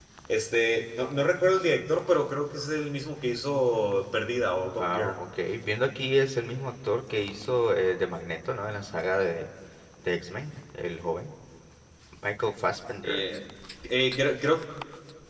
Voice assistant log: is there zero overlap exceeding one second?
Yes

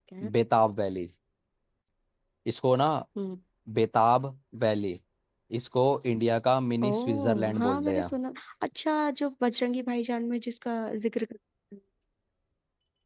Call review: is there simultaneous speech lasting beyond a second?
Yes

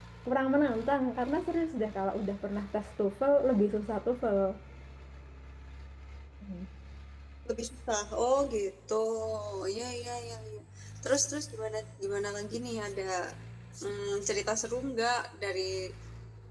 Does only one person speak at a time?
Yes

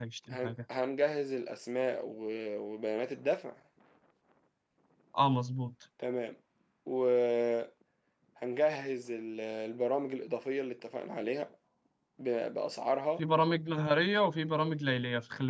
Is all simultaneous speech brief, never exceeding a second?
Yes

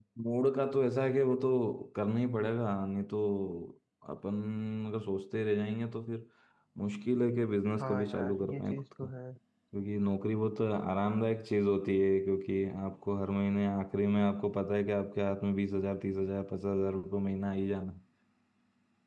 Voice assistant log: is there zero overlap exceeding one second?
No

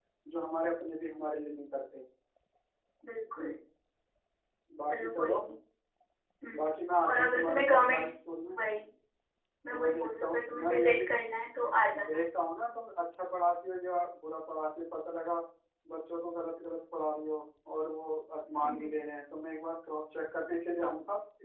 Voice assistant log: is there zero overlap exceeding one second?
No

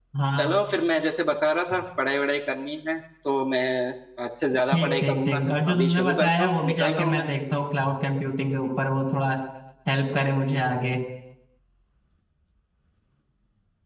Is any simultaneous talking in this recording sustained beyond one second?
Yes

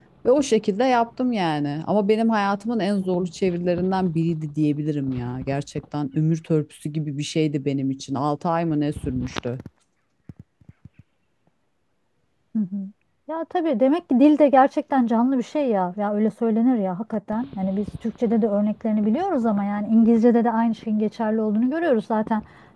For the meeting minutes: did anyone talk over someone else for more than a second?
No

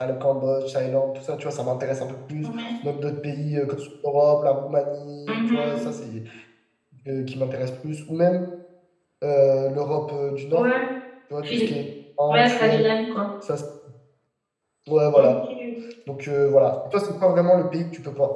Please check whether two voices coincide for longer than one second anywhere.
No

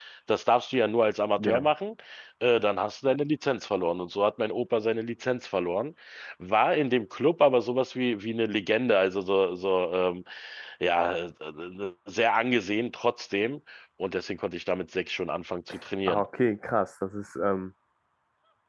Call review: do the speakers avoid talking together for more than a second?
Yes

